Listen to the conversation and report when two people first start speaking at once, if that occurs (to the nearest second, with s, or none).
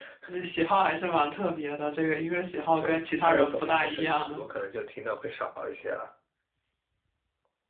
3 s